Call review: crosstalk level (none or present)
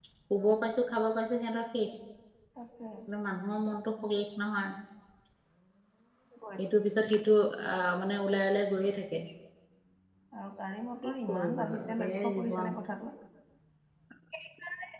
present